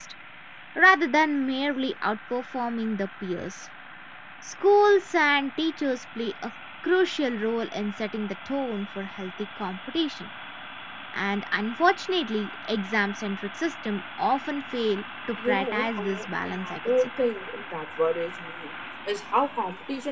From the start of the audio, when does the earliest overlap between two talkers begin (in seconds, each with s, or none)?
15.4 s